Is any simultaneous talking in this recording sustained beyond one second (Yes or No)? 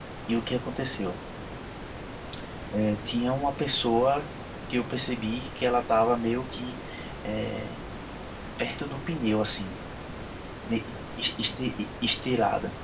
No